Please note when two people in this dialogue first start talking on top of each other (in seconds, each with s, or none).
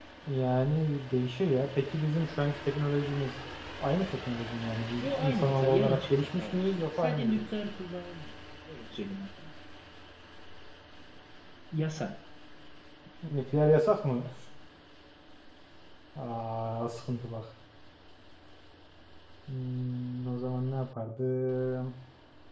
5.0 s